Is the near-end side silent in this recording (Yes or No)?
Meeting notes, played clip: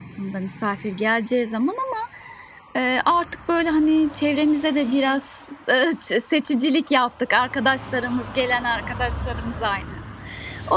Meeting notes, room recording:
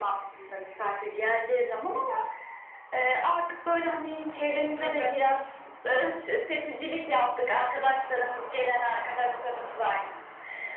No